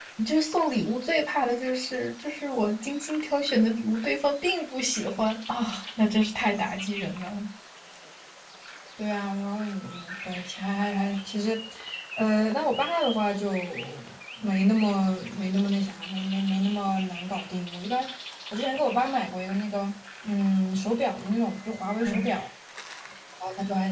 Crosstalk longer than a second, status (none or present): none